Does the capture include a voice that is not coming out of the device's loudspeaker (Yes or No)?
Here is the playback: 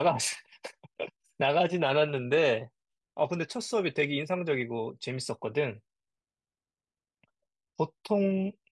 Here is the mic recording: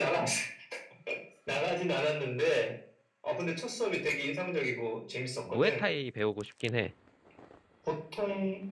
Yes